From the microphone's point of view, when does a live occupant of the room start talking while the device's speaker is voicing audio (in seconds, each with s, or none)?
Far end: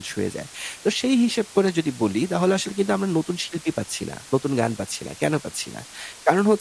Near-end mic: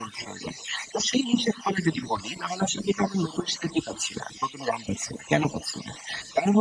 none